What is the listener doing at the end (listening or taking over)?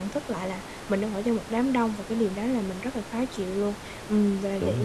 listening